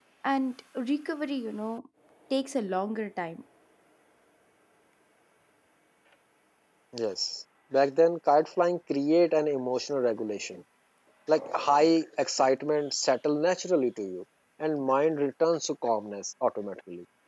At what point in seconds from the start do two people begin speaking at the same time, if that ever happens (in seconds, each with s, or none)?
none